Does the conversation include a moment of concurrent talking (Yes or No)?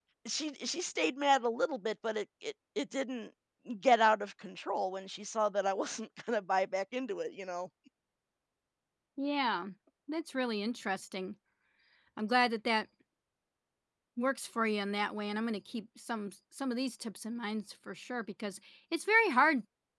No